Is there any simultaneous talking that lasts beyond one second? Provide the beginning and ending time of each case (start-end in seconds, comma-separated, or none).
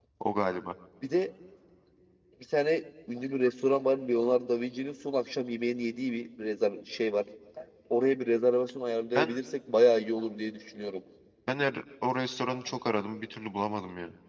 none